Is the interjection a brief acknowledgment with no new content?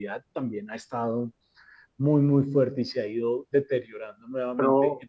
No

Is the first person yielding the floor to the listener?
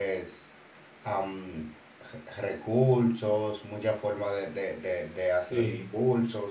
No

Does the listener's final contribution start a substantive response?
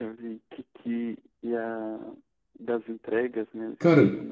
Yes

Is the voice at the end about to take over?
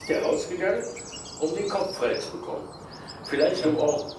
No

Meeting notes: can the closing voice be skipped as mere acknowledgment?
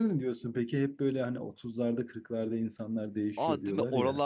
No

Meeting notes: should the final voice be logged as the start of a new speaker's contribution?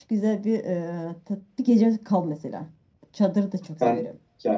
Yes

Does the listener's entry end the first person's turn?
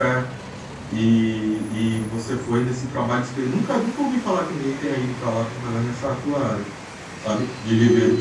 Yes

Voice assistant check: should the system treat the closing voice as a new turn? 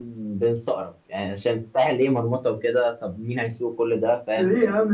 Yes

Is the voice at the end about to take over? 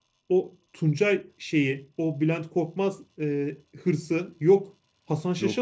No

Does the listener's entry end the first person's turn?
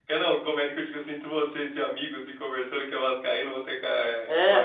Yes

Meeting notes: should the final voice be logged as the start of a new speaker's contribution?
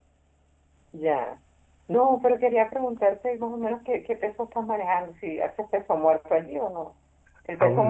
No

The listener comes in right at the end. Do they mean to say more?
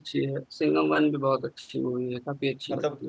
Yes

